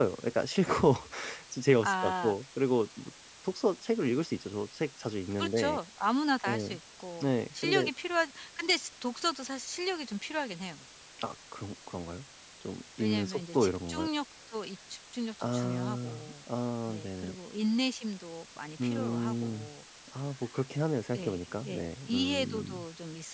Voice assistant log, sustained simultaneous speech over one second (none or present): present